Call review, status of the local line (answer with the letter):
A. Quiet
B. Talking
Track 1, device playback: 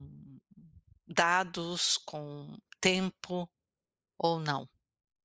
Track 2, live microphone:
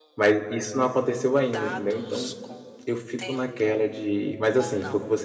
B